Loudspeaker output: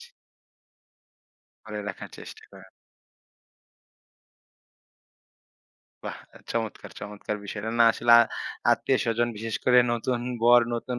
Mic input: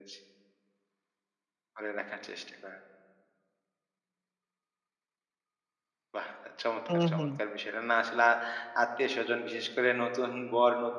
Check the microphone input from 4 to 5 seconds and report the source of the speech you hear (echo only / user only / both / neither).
neither